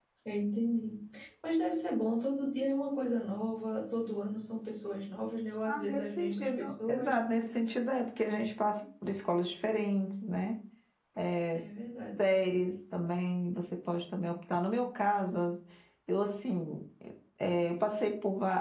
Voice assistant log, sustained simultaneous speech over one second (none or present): present